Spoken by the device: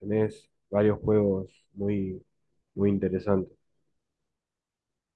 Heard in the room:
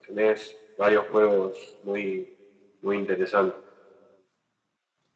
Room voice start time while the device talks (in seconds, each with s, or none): none